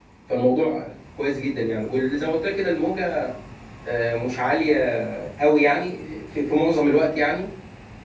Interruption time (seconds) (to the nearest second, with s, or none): none